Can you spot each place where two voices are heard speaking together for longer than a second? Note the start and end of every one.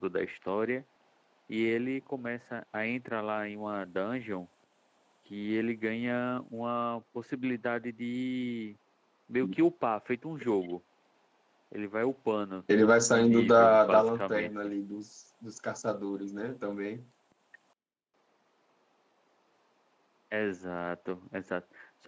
13.0-14.7

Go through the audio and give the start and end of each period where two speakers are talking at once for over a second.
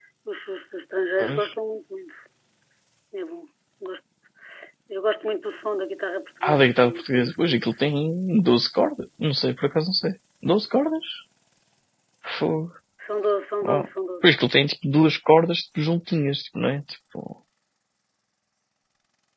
6.4-7.6

